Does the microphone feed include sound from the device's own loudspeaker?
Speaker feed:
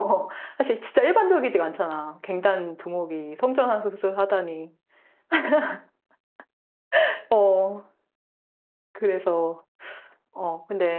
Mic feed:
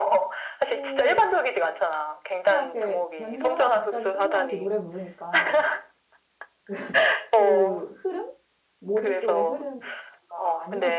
Yes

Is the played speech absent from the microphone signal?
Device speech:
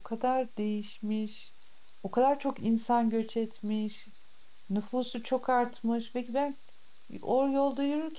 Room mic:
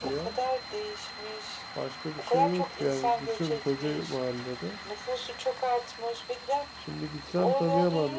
No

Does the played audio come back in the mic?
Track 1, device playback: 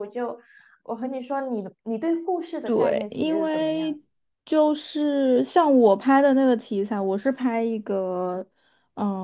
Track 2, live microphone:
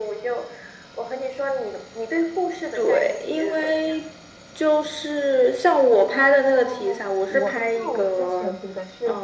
Yes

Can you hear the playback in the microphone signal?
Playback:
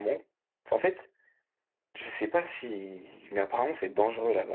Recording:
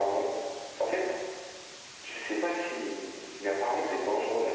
Yes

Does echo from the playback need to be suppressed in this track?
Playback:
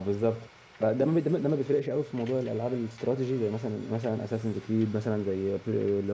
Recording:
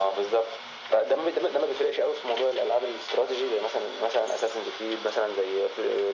Yes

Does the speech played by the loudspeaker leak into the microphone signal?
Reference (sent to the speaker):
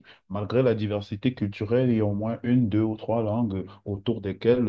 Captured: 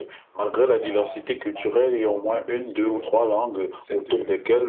Yes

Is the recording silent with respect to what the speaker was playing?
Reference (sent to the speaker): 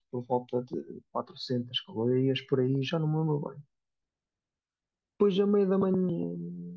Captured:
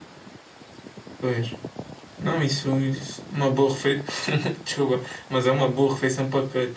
Yes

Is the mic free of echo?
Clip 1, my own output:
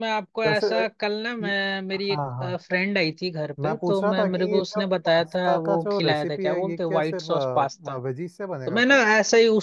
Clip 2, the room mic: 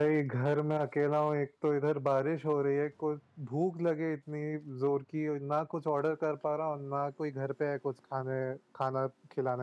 Yes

